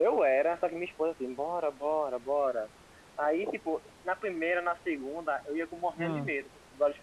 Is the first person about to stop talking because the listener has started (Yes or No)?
No